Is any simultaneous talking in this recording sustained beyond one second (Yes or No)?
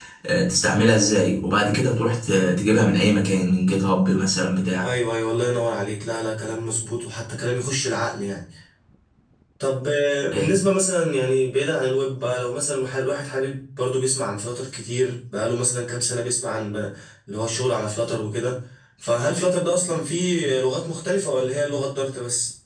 No